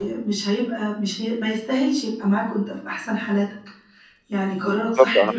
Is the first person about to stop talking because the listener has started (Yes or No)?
Yes